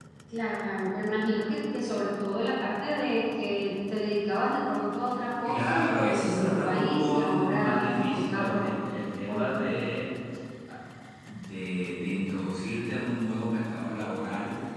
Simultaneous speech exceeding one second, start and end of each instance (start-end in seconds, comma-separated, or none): 5.4-8.7